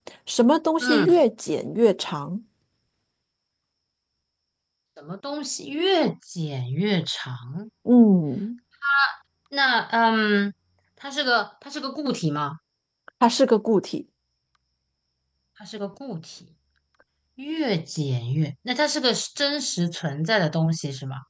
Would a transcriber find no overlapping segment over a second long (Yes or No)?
Yes